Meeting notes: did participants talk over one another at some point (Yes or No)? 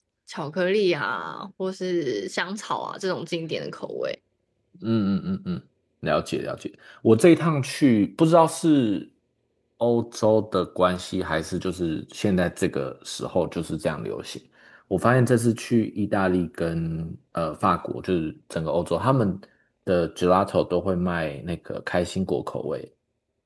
No